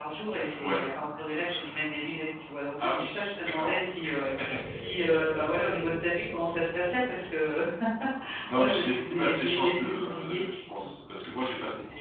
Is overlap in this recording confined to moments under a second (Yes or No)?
No